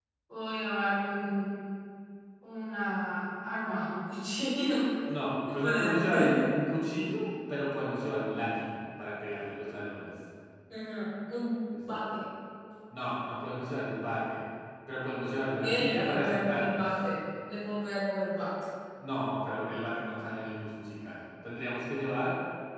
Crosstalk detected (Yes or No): Yes